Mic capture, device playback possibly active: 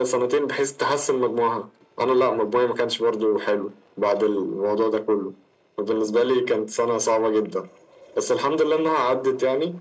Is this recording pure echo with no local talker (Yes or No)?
Yes